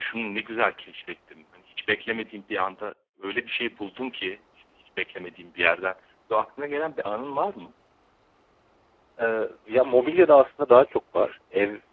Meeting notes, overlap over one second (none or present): none